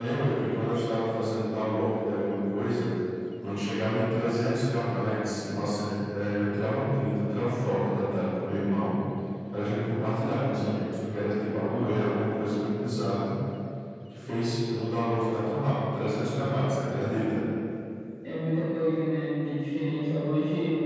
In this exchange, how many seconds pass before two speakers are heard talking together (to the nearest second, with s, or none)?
none